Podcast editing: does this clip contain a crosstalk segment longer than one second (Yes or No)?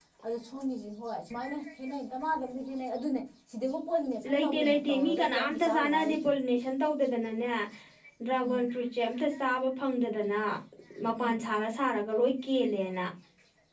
Yes